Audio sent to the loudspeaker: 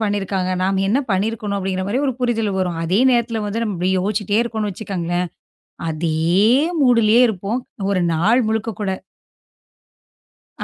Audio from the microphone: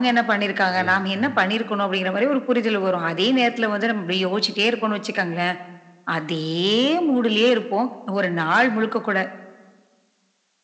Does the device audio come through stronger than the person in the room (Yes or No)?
Yes